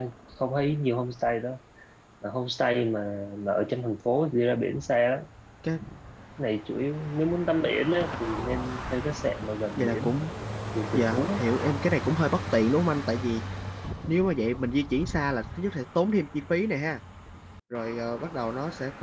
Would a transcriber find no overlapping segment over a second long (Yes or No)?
Yes